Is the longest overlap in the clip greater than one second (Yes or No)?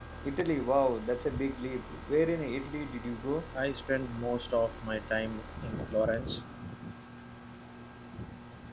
No